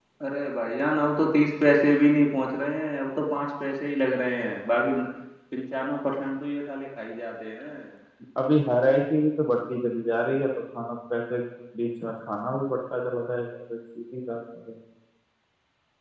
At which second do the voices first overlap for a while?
none

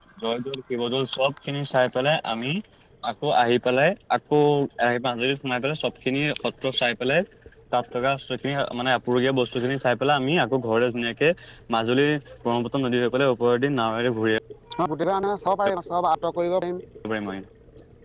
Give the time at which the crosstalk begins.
none

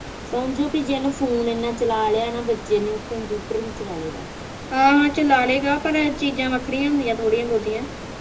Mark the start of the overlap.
none

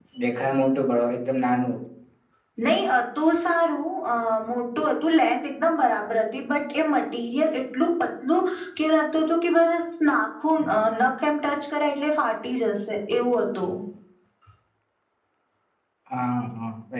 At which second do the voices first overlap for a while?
none

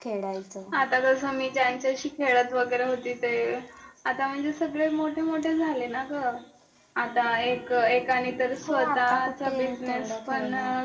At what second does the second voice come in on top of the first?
8.6 s

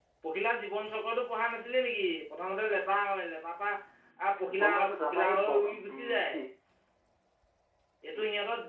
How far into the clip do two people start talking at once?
4.5 s

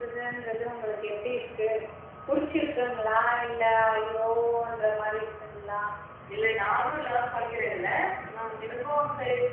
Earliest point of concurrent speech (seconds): none

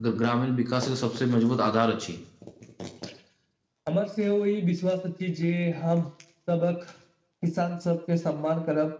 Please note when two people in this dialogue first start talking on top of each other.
none

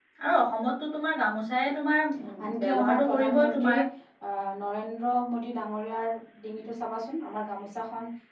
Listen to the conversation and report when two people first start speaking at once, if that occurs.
2.6 s

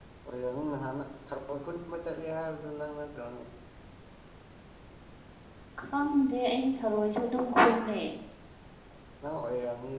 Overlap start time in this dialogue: none

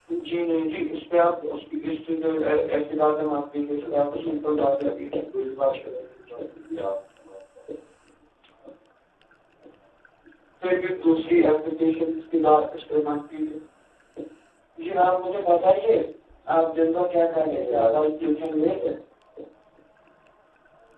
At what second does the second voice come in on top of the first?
3.9 s

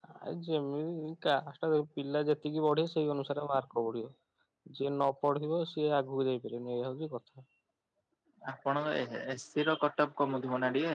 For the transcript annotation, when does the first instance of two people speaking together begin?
none

